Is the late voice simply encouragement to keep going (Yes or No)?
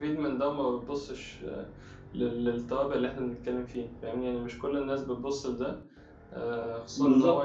Yes